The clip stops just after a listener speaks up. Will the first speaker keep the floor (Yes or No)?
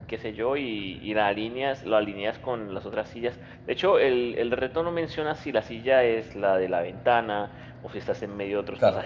Yes